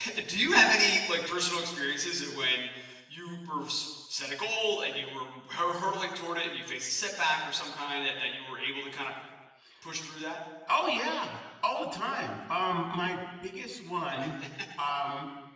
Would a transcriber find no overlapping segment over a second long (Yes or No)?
Yes